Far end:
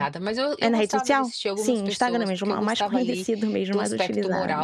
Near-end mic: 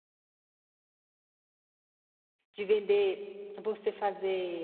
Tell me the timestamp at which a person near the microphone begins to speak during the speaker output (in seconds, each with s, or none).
2.5 s